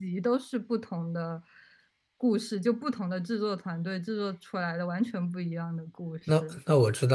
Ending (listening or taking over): taking over